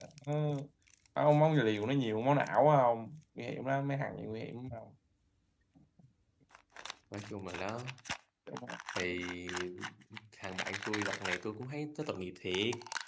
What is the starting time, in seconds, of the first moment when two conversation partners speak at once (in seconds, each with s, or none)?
none